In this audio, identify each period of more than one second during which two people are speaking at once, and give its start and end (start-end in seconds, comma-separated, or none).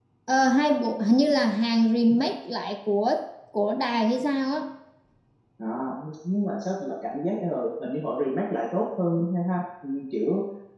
none